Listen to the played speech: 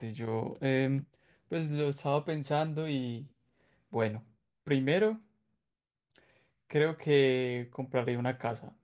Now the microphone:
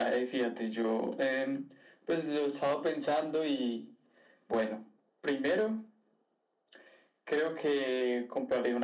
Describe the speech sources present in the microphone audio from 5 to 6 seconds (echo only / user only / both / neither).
echo only